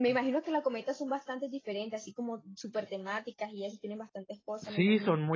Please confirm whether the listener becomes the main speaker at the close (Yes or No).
Yes